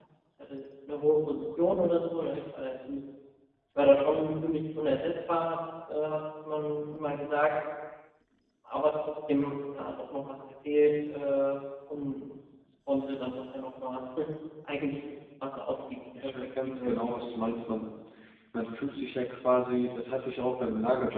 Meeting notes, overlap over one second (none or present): present